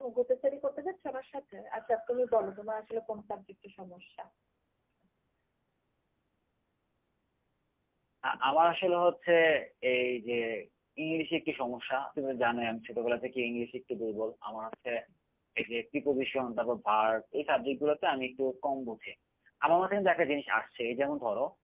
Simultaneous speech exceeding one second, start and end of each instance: none

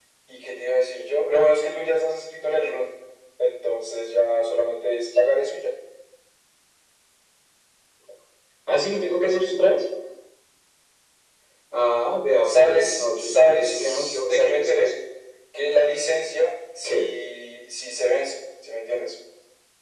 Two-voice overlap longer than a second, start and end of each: 12.4-14.9

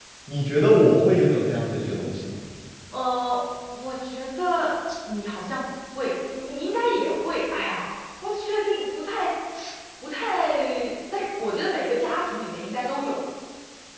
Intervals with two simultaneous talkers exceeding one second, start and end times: none

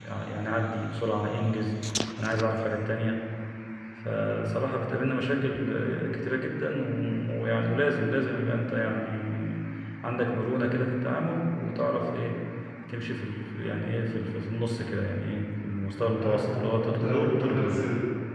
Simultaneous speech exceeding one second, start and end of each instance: 16.2-17.8

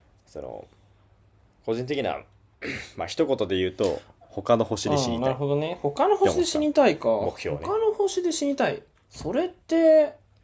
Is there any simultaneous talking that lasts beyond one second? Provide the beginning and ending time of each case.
none

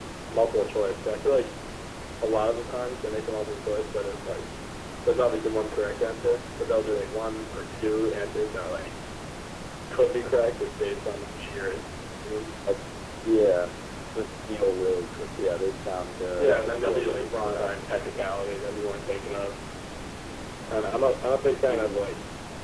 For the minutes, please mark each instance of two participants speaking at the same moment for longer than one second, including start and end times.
16.4-17.7

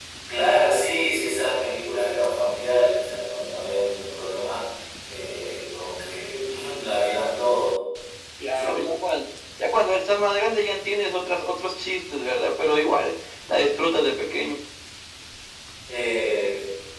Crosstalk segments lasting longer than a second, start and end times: none

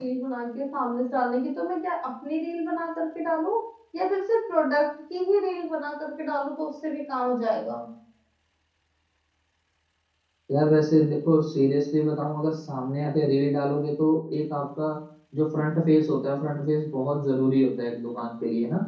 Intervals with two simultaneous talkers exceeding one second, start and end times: none

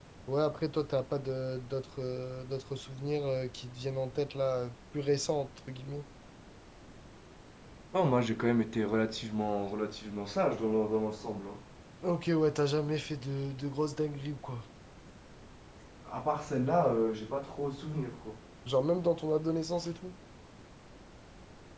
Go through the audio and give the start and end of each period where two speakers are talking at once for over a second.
none

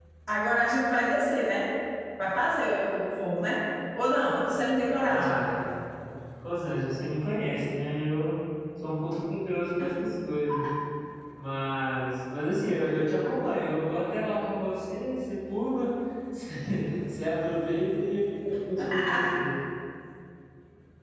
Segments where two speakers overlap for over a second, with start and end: none

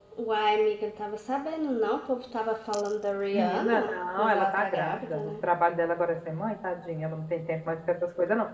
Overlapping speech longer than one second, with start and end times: 3.3-5.3

